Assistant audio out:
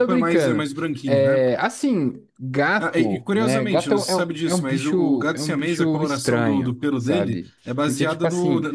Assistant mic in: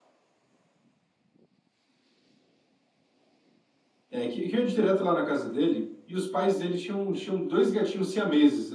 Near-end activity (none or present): present